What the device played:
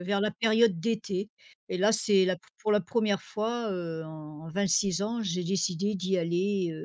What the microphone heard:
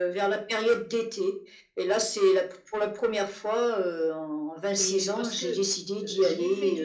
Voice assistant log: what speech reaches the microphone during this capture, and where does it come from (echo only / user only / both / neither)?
both